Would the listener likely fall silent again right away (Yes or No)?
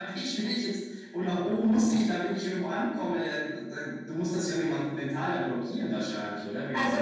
No